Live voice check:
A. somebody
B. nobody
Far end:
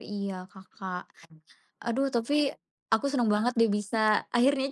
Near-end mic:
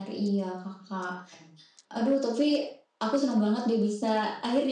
B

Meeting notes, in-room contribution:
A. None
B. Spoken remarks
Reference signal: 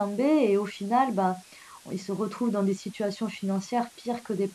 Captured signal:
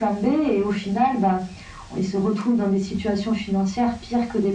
A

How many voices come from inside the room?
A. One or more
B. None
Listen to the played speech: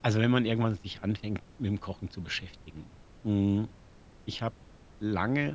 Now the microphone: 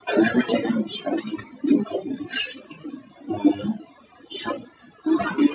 B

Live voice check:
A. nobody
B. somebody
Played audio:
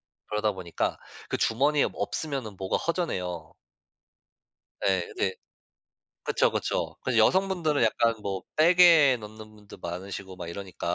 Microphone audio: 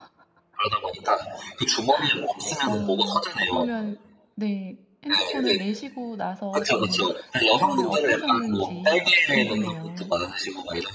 B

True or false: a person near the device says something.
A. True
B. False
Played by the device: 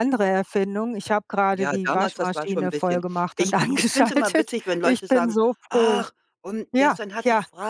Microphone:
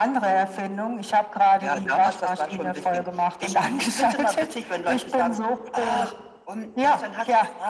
B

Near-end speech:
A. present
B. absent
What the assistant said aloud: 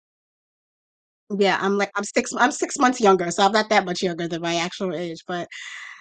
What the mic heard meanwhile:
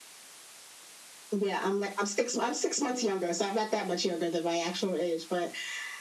B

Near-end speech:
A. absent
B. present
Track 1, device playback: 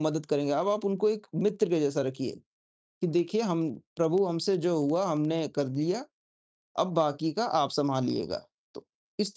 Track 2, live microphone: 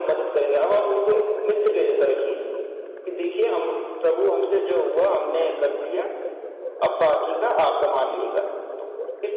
A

